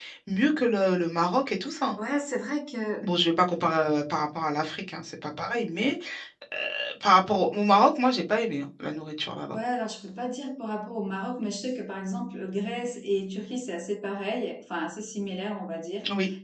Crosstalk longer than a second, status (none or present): none